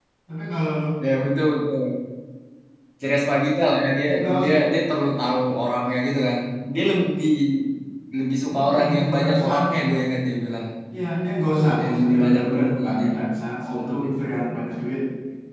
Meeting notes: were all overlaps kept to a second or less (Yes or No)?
No